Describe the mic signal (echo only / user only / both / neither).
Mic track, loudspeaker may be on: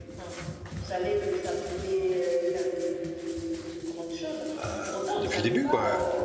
both